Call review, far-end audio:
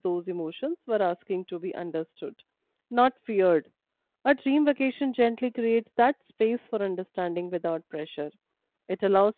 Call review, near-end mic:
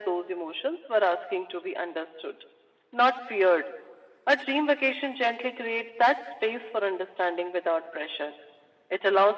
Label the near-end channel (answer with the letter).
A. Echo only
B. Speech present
A